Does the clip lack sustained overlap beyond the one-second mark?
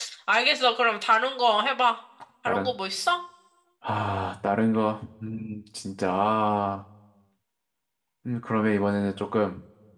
Yes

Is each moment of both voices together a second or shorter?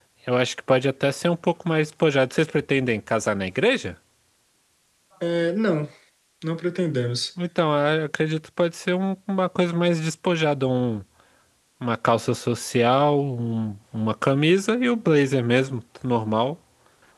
Yes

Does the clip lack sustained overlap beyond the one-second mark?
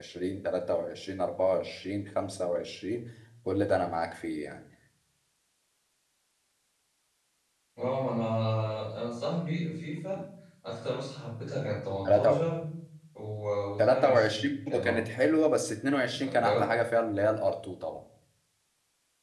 No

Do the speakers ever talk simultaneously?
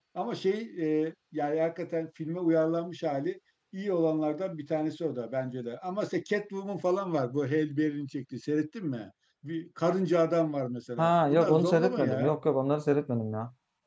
Yes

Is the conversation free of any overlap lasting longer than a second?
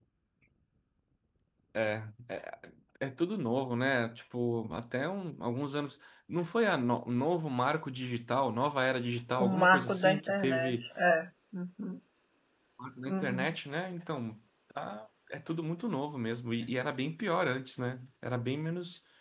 No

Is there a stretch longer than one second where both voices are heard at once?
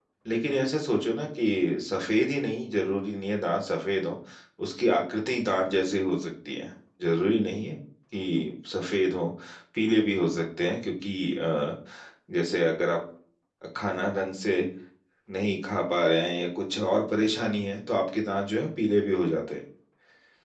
No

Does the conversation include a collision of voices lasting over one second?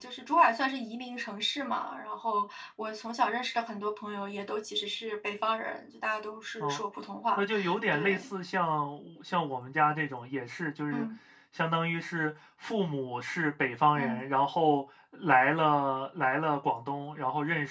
No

